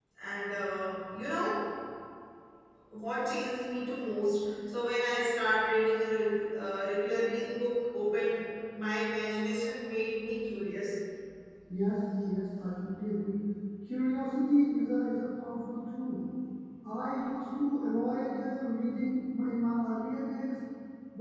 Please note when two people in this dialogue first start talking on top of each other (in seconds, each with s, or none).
none